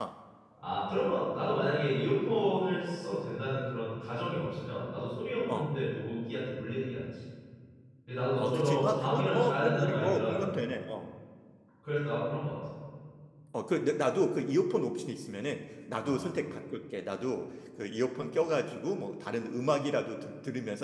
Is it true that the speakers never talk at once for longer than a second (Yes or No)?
No